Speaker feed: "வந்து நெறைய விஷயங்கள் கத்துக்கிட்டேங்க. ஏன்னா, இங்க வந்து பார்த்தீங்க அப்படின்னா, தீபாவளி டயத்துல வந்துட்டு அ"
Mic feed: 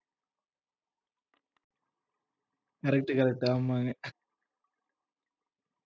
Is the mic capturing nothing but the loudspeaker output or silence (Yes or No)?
No